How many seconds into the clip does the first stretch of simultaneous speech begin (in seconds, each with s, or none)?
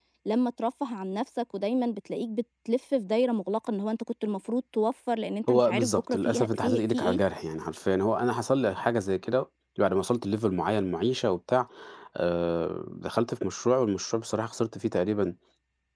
5.5 s